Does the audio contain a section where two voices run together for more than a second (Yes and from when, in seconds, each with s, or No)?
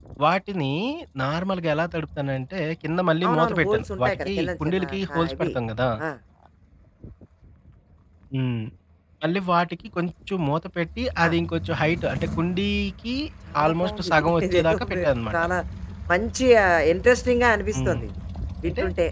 Yes, from 3.3 s